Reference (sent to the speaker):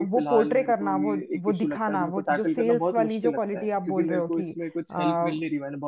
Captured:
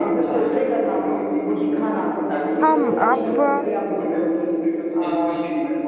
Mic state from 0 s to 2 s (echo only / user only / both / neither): echo only